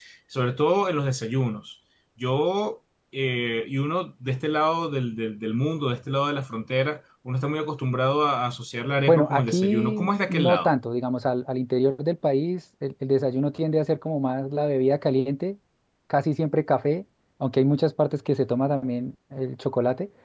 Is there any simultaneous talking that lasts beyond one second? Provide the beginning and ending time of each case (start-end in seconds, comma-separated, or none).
9.1-10.7